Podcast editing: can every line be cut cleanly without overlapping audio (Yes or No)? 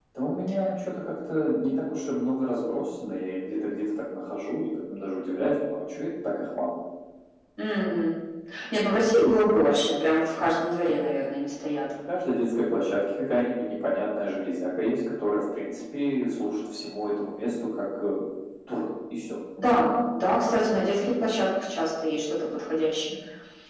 Yes